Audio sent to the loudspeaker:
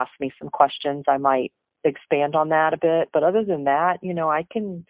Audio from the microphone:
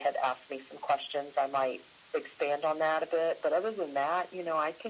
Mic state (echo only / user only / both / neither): echo only